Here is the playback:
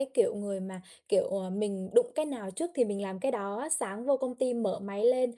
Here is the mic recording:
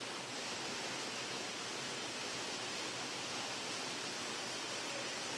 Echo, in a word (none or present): none